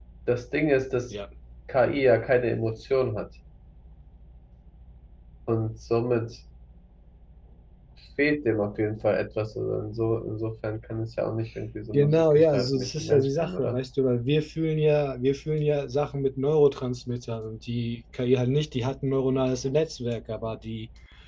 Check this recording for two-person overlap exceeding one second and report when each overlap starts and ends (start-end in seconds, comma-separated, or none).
11.9-13.8